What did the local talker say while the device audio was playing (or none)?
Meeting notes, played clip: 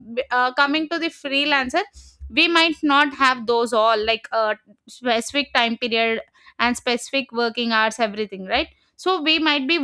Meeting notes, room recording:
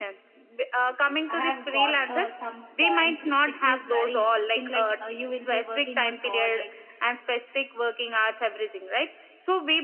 I have got uh, some points which is very interesting. Like uh, you will be working on projects